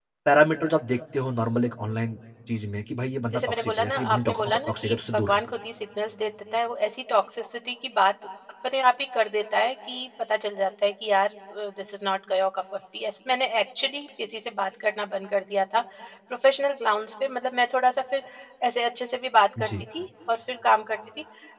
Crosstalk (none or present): present